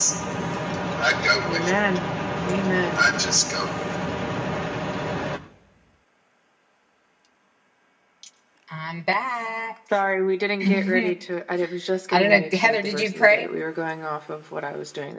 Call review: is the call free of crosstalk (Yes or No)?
No